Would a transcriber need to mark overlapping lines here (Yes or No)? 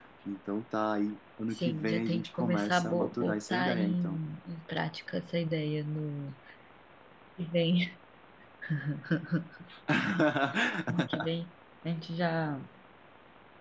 Yes